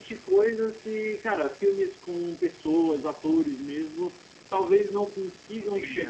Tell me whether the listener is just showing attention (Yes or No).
Yes